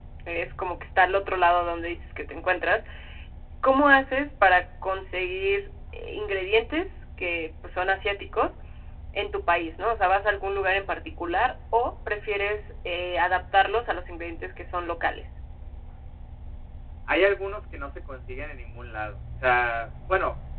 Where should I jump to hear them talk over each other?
none

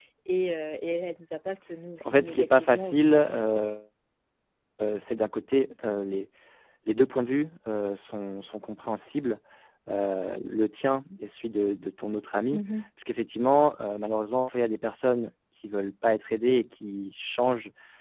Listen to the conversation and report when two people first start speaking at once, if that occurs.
2.0 s

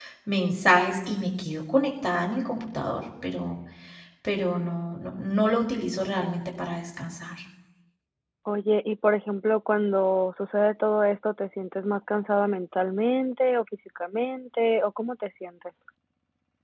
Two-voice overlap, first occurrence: none

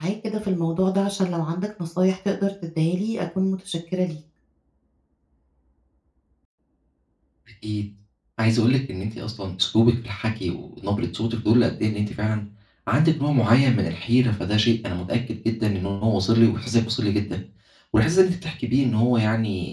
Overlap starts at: none

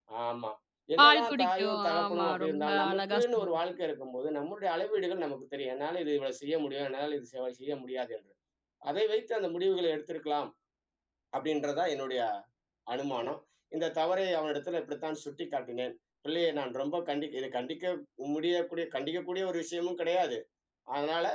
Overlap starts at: 1.0 s

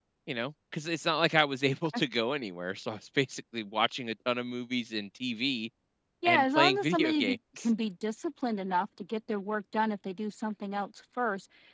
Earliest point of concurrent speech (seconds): 6.2 s

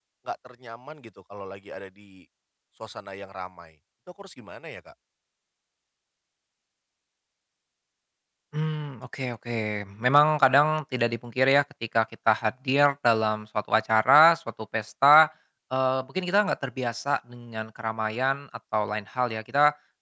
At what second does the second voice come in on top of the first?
none

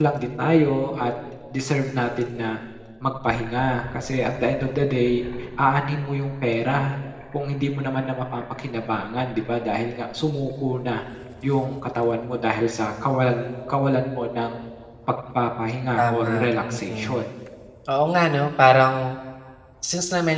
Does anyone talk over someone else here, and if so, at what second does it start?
15.9 s

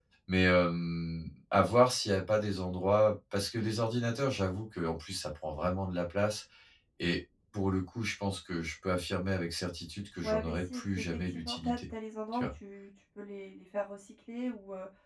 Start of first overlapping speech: 10.2 s

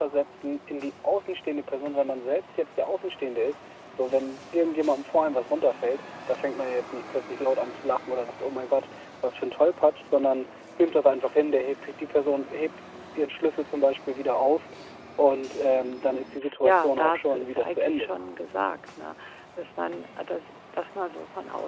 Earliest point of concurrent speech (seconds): 16.6 s

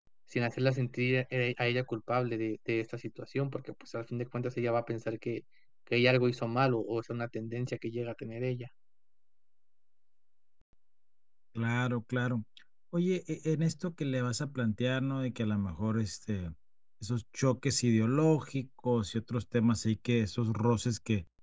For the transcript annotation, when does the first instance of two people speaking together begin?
none

